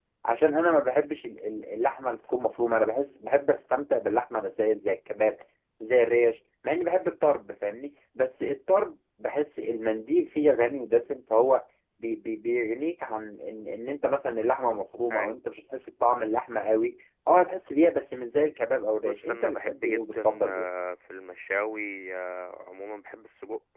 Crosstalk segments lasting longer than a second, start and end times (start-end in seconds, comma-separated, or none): 19.0-20.6